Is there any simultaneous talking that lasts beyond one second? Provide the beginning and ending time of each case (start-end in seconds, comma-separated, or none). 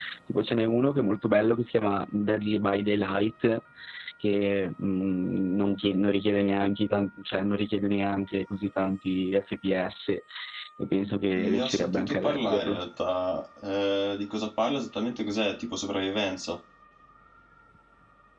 11.4-12.8